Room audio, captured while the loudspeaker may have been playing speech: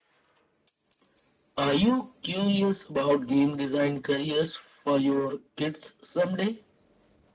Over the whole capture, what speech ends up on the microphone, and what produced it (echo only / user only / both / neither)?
echo only